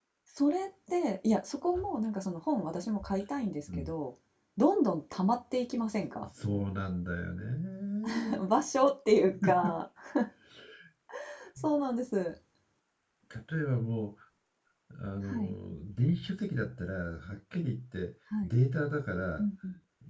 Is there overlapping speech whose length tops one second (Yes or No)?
No